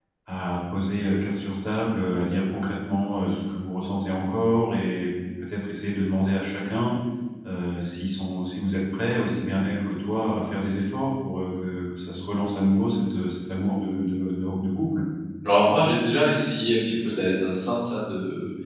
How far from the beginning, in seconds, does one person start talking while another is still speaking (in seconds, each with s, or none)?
none